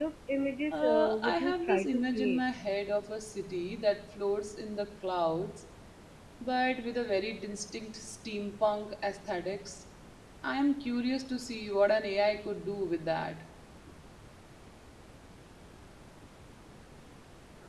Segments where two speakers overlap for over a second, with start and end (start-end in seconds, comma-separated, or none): 0.7-2.4